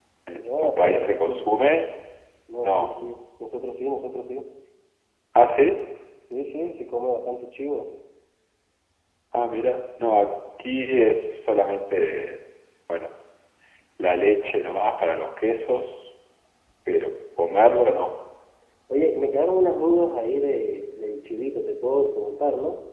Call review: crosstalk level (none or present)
present